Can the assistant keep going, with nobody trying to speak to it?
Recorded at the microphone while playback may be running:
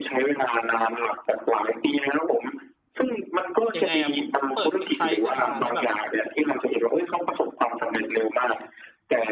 No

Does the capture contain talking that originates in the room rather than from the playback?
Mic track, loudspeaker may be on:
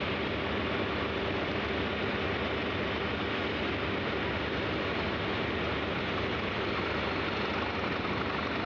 No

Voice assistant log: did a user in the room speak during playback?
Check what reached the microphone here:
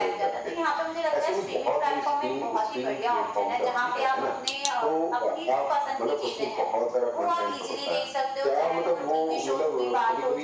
No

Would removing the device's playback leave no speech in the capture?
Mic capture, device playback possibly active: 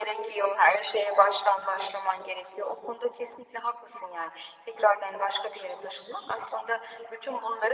Yes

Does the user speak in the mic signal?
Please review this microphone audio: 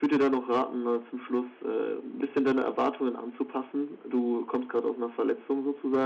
Yes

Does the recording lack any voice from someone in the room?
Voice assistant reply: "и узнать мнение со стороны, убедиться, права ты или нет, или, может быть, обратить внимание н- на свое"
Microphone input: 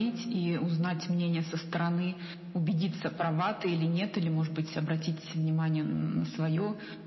Yes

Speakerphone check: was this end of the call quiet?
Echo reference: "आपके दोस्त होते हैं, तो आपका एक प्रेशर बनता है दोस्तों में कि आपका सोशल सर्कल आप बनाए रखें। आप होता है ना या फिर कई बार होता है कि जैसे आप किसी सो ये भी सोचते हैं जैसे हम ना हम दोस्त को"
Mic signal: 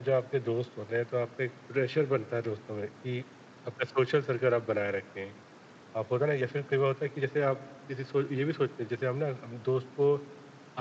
Yes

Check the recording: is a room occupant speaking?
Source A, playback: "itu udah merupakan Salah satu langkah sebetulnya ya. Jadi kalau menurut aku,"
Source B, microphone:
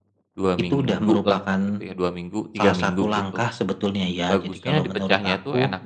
Yes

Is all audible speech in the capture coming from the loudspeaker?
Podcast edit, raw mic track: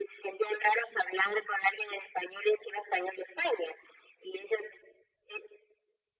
Yes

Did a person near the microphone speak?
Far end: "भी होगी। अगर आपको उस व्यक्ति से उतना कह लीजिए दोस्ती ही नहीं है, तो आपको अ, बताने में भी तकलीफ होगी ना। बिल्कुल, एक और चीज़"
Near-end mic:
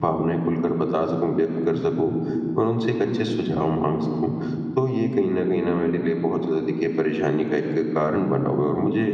Yes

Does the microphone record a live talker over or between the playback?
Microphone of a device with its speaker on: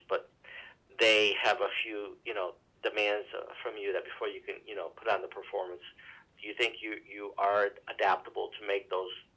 No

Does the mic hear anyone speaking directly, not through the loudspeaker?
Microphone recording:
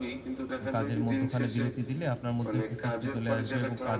Yes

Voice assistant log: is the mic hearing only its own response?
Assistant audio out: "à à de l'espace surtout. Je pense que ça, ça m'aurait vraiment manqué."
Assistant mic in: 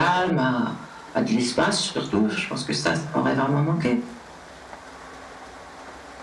Yes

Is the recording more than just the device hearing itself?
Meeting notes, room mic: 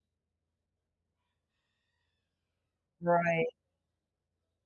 Yes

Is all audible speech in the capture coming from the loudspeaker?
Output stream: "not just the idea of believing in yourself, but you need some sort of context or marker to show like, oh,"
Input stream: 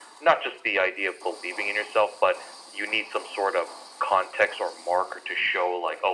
Yes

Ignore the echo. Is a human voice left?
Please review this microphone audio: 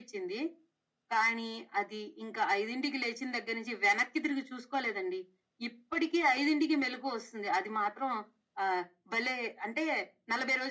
No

